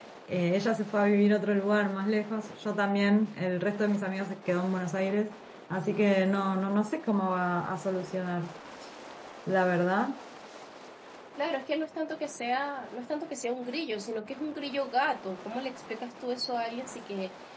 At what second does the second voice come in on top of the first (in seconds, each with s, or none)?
none